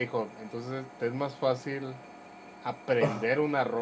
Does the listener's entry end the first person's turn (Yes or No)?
No